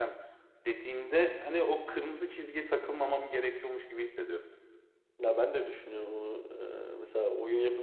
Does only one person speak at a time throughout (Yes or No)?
Yes